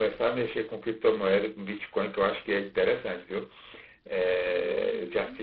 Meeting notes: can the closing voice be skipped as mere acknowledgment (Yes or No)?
No